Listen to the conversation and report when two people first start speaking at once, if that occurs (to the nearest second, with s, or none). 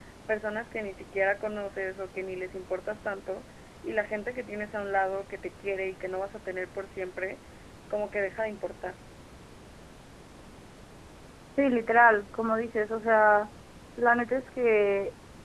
none